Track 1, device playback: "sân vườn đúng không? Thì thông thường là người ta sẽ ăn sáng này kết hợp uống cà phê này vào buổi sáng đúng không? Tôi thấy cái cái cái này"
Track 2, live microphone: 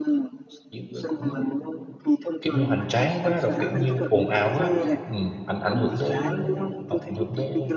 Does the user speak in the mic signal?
Yes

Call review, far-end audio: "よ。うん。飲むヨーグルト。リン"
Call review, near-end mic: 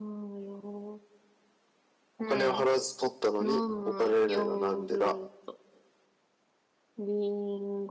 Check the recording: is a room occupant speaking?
Yes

